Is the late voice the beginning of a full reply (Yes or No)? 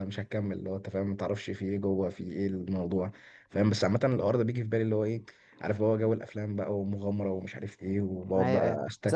Yes